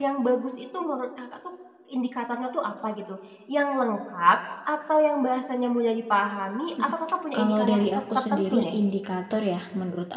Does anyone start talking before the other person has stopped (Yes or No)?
Yes